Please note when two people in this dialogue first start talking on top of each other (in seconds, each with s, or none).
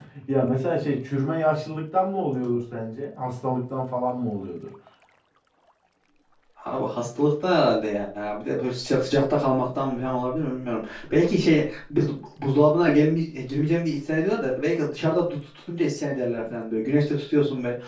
none